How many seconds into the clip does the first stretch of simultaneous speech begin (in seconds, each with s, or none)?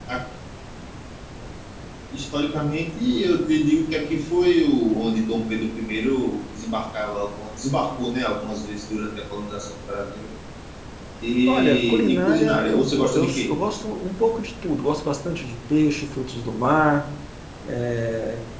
11.5 s